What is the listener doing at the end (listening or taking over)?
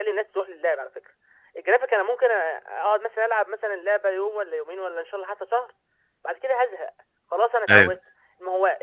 listening